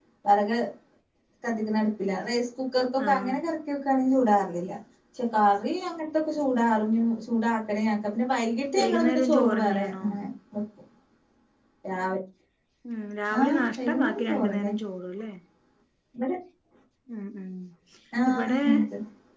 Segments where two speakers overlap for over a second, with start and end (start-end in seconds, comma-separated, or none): 8.8-10.0, 13.4-14.7